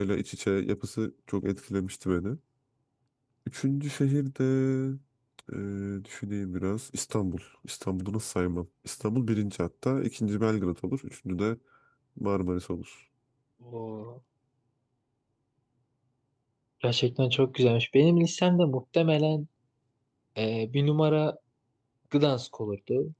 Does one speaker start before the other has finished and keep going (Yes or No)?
No